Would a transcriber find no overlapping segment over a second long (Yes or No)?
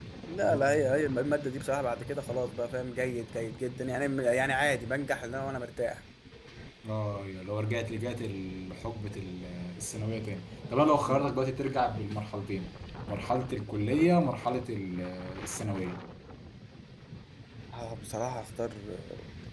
Yes